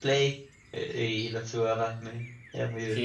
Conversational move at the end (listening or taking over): taking over